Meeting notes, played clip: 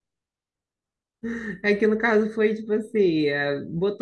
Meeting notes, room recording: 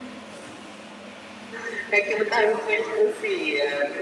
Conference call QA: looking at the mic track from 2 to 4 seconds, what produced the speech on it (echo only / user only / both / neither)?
echo only